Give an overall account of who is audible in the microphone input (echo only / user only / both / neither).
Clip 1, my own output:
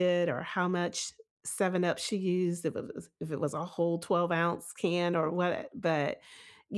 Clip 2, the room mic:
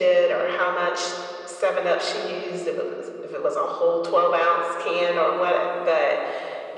echo only